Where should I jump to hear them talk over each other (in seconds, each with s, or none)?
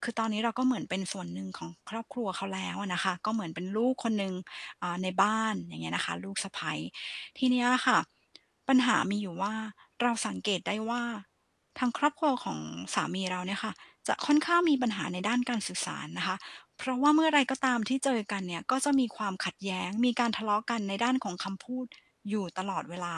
none